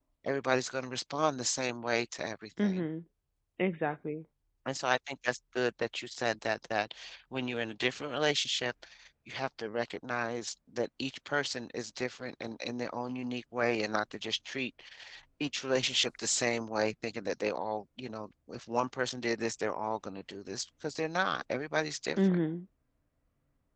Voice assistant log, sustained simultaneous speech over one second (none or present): none